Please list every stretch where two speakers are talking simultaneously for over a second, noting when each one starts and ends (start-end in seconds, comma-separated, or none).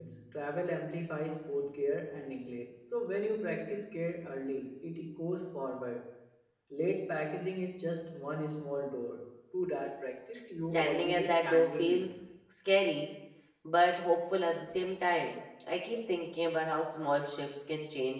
10.6-12.0